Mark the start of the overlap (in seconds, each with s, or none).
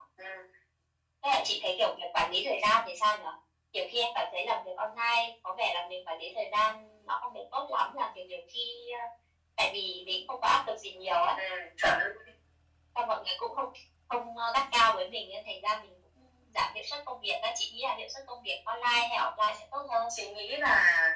none